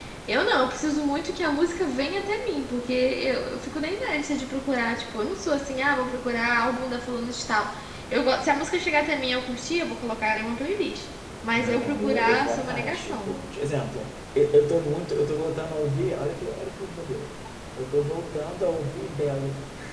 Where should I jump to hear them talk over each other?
11.6 s

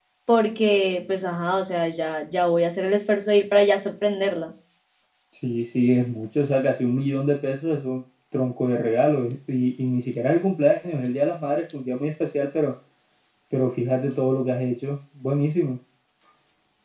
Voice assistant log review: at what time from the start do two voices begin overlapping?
none

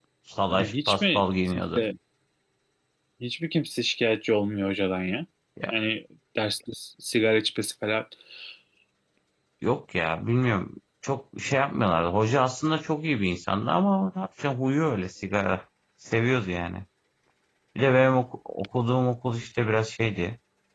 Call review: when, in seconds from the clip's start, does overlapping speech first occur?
0.5 s

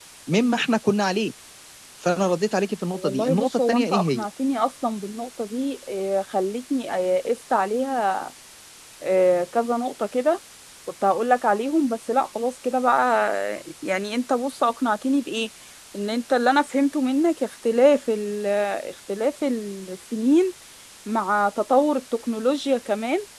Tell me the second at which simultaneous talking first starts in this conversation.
2.9 s

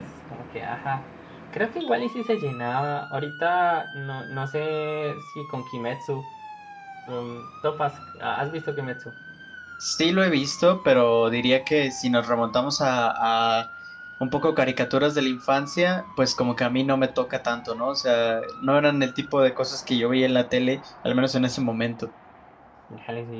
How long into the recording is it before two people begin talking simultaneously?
none

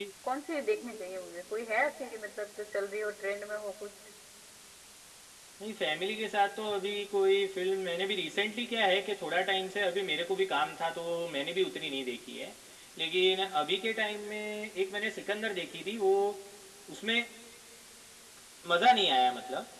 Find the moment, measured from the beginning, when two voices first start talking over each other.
none

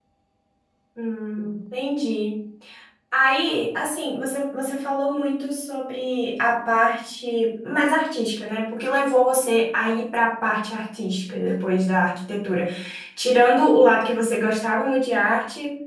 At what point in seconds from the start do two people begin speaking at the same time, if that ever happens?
none

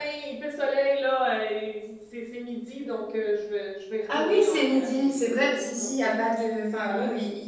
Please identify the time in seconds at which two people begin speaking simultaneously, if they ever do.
4.1 s

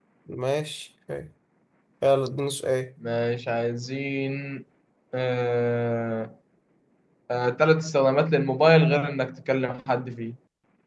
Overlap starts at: none

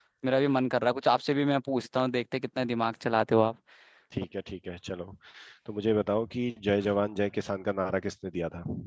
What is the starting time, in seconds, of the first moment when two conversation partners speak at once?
none

